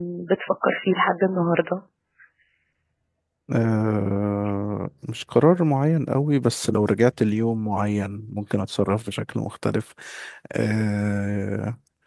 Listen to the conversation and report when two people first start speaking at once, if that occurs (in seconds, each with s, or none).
none